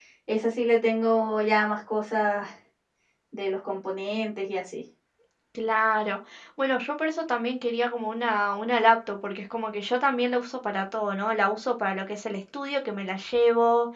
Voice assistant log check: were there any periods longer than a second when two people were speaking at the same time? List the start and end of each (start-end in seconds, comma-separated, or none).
none